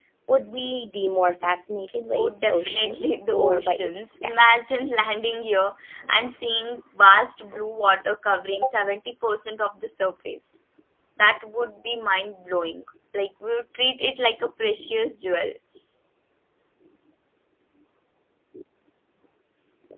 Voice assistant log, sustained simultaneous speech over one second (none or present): present